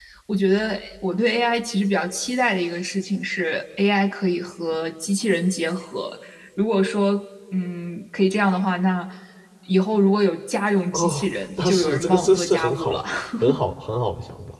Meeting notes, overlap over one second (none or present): present